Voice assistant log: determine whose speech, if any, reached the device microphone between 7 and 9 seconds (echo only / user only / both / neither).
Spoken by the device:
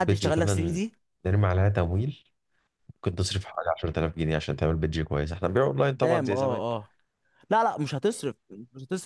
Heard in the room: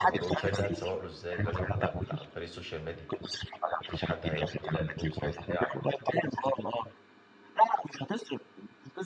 echo only